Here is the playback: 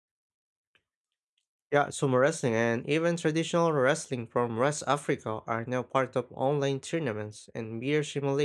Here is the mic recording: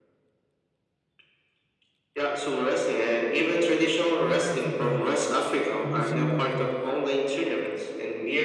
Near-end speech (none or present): present